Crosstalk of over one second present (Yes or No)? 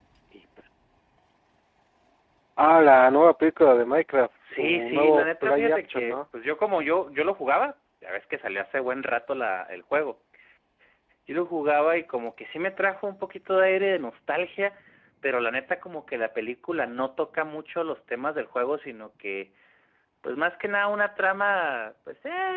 Yes